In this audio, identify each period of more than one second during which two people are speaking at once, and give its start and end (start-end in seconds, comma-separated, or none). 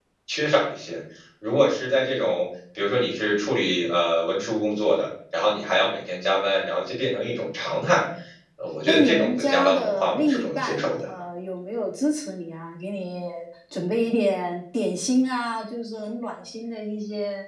8.9-11.0